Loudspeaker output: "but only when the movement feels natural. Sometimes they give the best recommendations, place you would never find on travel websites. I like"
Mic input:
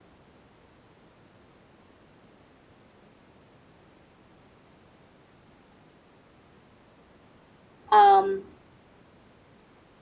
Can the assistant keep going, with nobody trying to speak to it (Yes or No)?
No